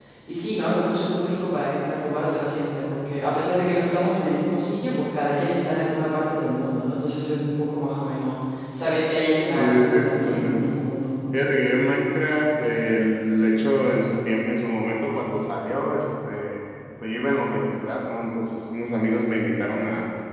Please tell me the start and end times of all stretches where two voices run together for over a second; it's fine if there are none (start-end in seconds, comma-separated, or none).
9.6-10.8